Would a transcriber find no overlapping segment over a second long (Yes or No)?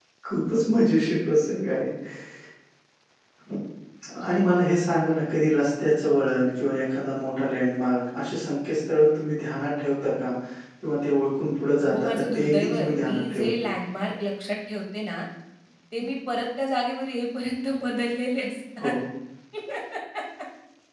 No